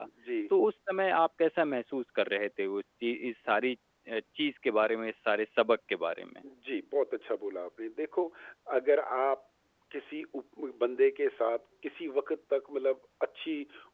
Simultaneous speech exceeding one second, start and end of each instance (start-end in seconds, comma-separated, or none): none